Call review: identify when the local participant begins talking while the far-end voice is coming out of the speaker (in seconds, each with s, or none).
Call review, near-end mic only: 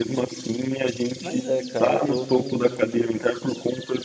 1.2 s